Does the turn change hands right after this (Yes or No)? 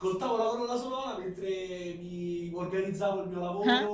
No